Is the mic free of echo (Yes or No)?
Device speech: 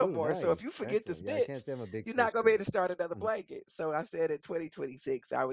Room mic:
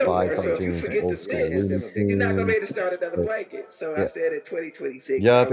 No